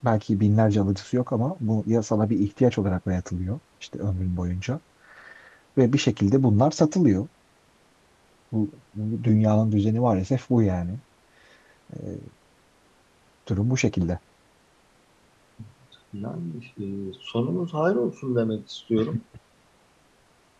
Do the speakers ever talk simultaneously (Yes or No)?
No